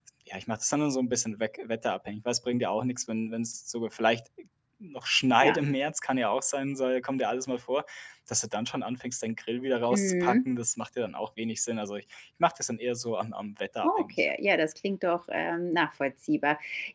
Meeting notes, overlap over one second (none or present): none